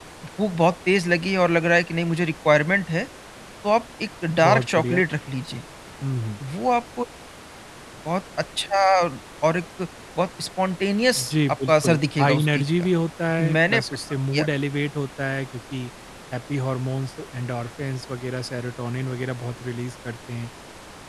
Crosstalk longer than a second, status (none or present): present